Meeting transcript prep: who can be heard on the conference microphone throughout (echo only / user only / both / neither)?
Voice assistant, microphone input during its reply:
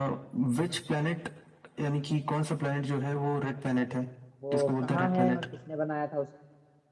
both